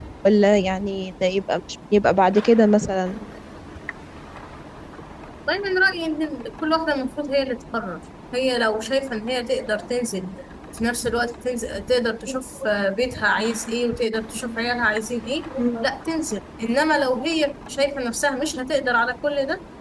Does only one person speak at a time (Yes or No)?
Yes